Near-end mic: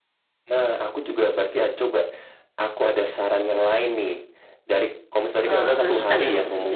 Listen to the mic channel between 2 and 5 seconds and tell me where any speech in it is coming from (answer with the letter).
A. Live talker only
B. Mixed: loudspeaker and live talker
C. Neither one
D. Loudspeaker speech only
D